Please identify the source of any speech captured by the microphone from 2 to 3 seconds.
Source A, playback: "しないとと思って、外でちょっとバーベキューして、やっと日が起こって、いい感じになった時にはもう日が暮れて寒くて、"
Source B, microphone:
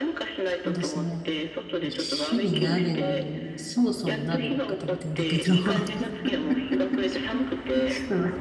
both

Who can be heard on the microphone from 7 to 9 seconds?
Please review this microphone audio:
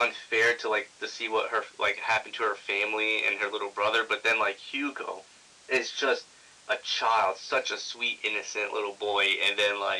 echo only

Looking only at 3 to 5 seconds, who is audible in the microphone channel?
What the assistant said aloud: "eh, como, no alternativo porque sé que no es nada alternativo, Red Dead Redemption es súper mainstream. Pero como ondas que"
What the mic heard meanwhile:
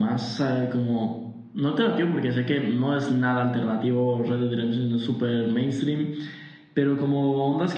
echo only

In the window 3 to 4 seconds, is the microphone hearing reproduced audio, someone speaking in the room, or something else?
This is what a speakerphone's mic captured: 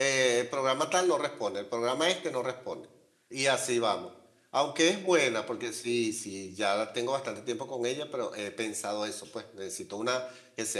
user only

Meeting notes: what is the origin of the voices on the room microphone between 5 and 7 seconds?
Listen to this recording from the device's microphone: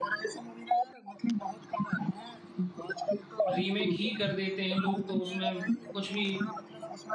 both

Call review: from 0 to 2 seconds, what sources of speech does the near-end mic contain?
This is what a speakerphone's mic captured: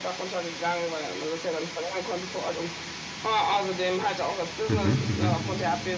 echo only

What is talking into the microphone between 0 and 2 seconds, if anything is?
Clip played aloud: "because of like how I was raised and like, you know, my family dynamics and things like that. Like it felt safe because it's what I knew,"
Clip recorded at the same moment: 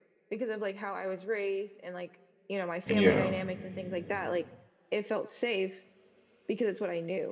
echo only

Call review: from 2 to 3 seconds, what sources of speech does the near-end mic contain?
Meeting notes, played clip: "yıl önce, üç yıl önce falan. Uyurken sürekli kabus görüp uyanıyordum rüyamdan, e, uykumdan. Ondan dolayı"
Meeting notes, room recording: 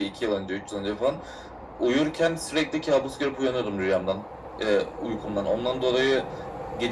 echo only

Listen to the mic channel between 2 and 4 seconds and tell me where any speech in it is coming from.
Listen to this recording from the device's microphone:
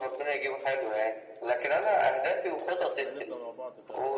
both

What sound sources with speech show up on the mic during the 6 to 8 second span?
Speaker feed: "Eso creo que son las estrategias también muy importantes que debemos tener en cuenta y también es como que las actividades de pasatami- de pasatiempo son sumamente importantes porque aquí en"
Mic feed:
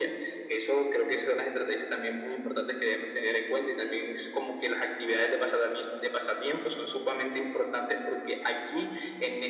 echo only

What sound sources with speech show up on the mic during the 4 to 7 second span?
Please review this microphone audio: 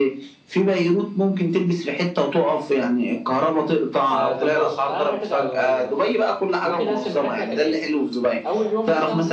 both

